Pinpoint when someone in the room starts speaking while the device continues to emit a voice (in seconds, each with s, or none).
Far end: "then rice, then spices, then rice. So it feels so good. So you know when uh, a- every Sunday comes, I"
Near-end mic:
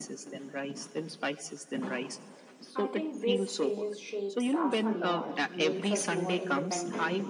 2.7 s